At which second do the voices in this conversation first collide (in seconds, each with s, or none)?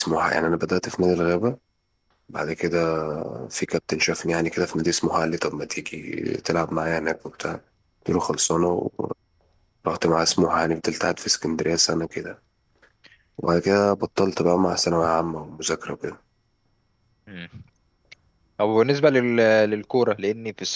none